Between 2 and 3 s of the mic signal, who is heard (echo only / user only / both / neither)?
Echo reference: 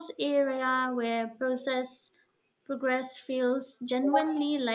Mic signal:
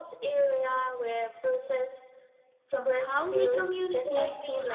both